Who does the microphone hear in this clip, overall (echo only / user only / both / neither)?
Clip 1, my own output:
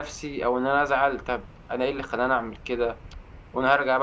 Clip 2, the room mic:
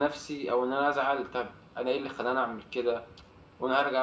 echo only